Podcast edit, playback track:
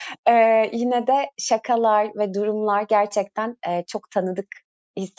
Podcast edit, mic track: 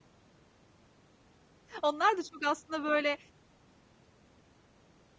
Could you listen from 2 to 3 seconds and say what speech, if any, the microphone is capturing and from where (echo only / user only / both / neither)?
user only